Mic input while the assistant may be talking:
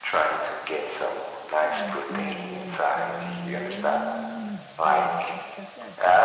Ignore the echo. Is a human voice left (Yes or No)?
Yes